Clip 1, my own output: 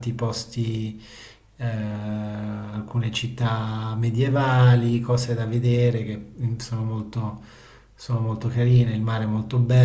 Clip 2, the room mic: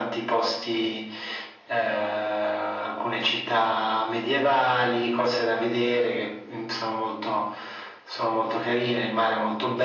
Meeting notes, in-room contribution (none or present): none